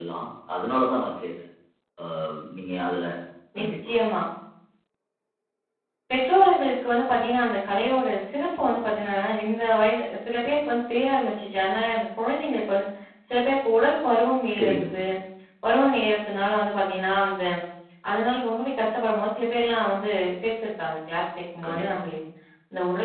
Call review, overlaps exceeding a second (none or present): none